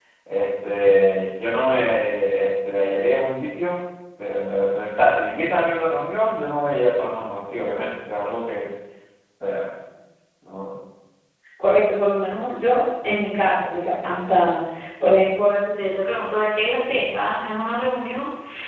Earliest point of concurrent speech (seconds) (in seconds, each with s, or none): none